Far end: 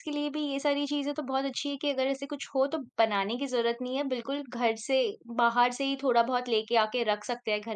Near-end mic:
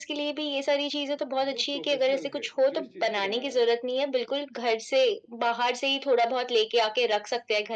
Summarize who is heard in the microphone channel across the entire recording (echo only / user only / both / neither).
both